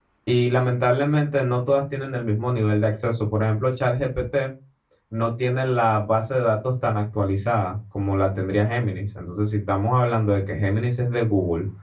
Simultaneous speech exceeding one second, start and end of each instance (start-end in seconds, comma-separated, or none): none